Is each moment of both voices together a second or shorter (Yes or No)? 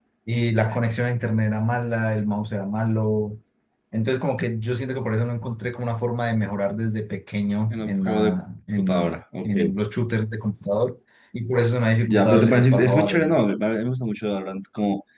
No